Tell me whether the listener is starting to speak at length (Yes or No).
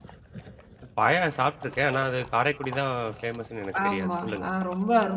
Yes